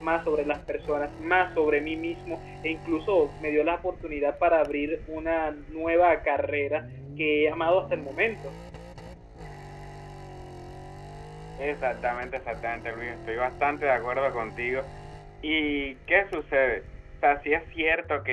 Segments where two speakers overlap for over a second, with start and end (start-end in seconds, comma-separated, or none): none